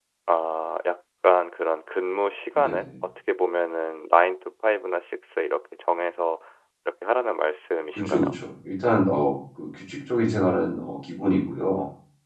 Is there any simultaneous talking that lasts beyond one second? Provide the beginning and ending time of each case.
none

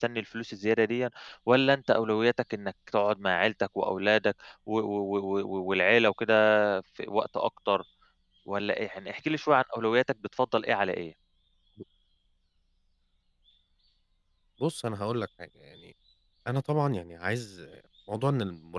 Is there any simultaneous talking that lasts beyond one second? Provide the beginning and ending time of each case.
none

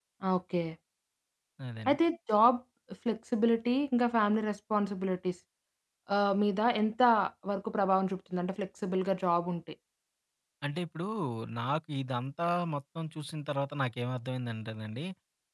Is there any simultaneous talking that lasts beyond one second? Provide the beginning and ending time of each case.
none

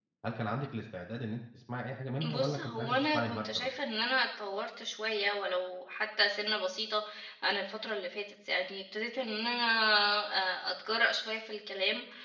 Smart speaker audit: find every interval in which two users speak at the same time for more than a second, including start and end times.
2.3-3.7

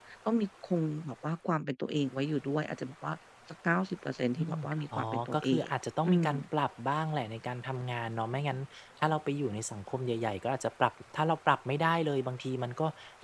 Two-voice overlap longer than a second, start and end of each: 4.4-5.6

